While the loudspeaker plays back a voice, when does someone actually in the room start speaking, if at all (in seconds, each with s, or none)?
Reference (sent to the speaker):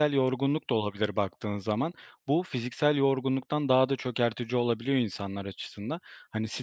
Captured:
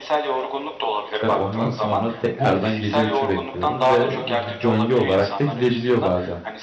1.2 s